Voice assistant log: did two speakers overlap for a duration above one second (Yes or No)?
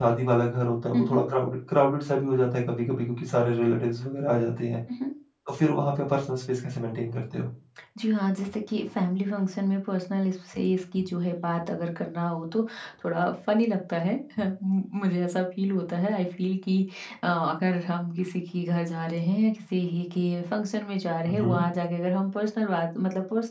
No